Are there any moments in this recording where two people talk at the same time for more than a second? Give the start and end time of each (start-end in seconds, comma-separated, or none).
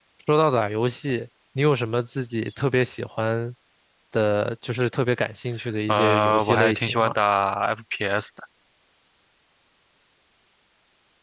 5.9-7.1